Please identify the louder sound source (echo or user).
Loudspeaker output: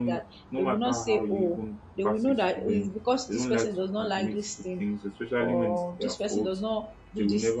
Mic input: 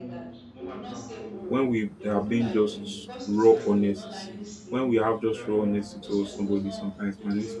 user